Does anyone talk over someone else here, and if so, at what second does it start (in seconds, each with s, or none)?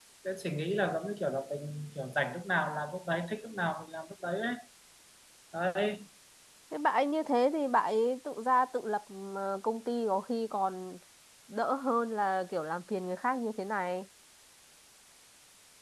none